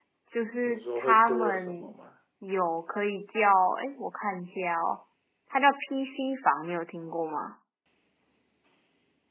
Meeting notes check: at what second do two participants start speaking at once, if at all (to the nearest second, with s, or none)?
1 s